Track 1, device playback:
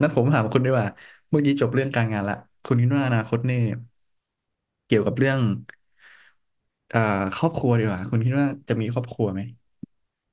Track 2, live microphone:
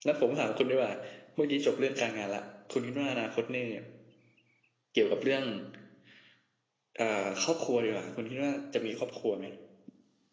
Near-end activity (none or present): none